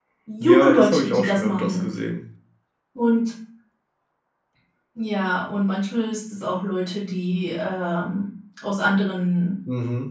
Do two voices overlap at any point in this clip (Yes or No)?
Yes